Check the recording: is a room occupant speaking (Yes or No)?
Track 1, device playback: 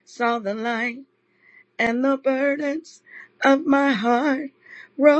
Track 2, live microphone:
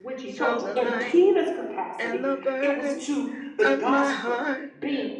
Yes